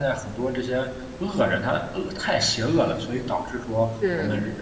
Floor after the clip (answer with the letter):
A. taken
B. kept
B